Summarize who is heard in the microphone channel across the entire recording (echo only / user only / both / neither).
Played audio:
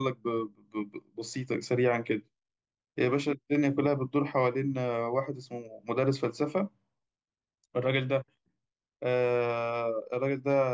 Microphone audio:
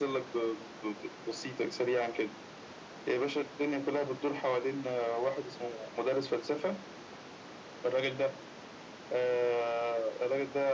echo only